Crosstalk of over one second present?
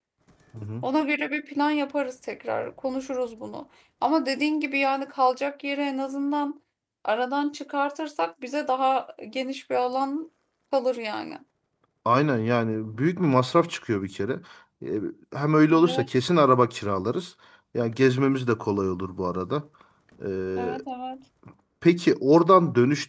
No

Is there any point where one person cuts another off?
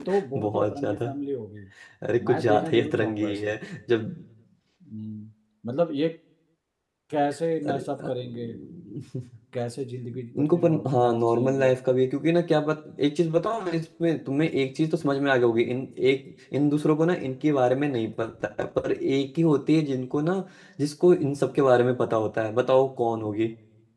Yes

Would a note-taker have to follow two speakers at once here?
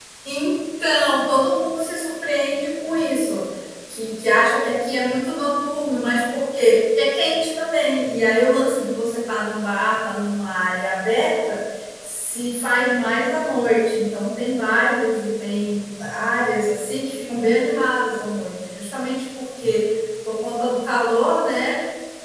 No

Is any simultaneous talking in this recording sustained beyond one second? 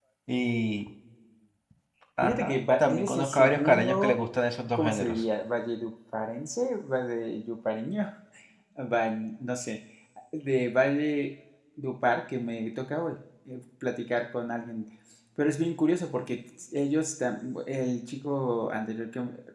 Yes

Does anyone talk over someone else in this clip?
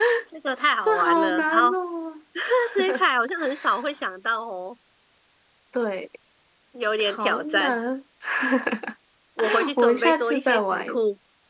Yes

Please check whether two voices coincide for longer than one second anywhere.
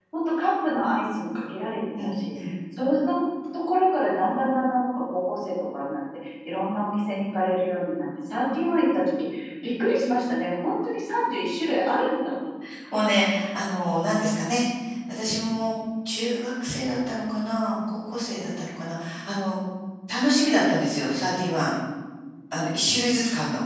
No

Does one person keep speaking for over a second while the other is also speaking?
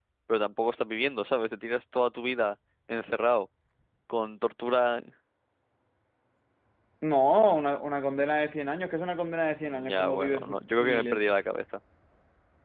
Yes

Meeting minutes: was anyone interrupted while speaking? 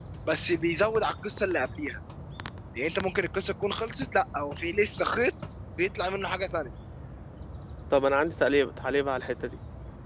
No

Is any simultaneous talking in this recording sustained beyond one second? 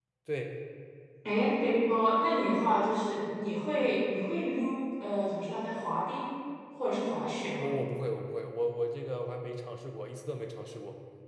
No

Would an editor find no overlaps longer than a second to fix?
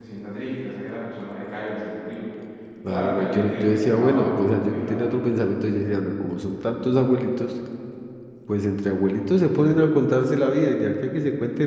No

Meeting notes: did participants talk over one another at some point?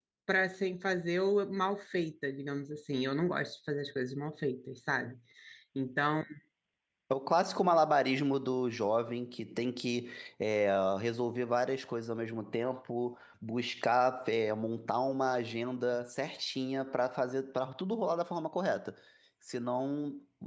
No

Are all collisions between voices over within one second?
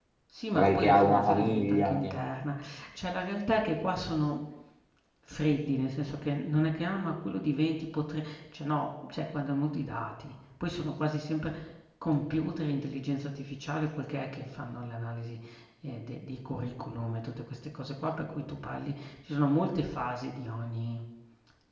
No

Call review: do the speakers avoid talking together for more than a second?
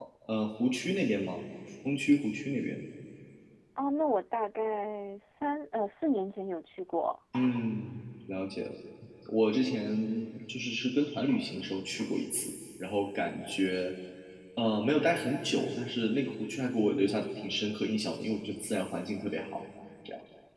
Yes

